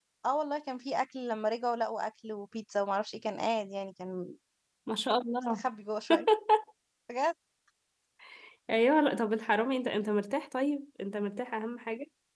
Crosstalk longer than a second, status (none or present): none